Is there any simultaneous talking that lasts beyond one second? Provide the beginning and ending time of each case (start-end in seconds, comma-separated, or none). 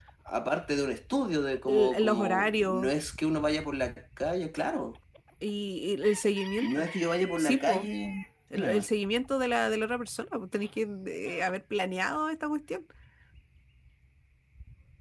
1.7-2.9